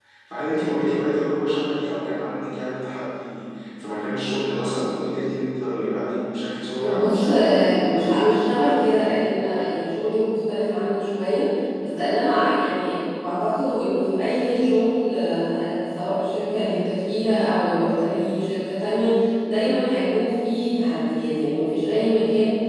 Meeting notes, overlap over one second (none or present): present